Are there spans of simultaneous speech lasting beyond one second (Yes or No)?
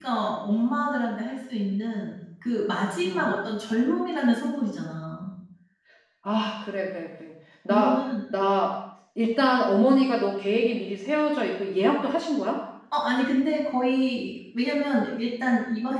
No